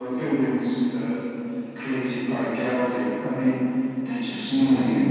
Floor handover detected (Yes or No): Yes